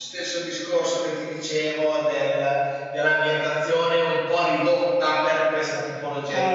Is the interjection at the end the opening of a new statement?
Yes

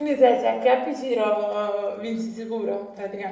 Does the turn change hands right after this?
Yes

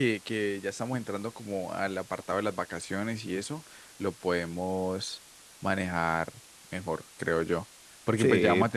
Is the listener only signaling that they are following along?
Yes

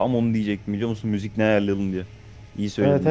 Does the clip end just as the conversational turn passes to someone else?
Yes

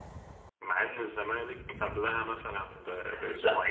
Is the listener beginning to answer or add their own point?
Yes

